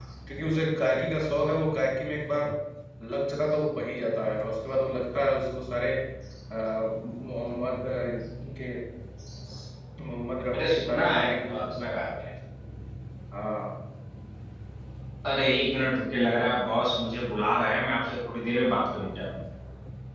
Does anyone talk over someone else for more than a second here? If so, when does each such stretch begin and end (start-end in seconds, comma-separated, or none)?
10.5-12.0